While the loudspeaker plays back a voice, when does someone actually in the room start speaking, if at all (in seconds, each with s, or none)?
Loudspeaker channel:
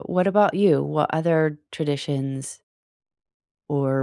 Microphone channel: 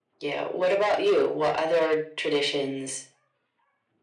none